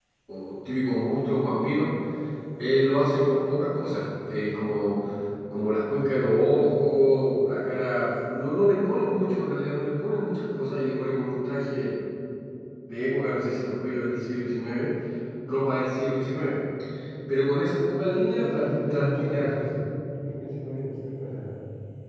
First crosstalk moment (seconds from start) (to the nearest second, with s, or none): 18 s